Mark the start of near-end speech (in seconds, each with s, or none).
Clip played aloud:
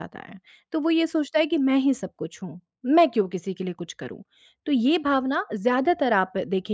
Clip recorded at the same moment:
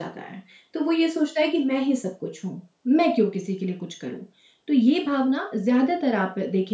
none